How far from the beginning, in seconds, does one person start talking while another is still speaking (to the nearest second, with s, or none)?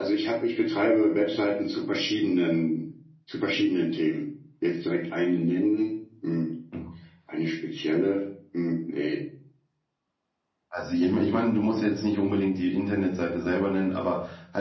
none